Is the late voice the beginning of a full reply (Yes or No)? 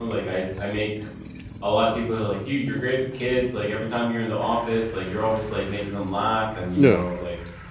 No